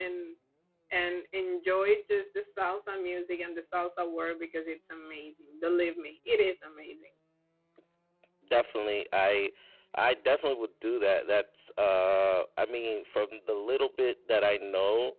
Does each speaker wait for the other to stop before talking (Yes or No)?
Yes